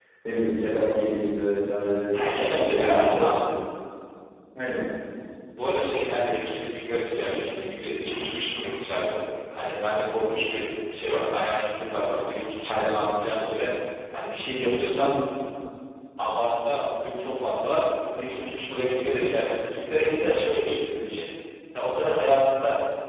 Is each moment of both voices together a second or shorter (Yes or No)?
No